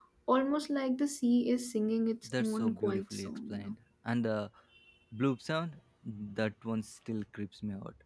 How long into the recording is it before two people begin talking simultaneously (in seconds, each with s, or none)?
2.2 s